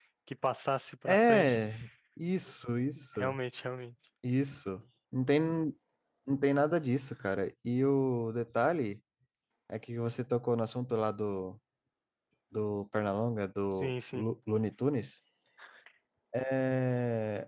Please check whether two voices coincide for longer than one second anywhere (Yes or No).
No